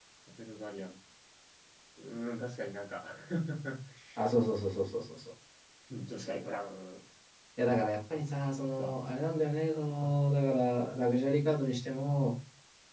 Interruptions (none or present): none